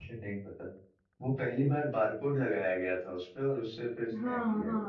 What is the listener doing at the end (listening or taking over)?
taking over